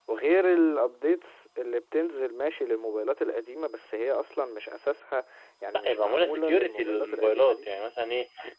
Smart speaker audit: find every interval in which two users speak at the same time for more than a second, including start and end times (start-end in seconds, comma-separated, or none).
5.7-7.6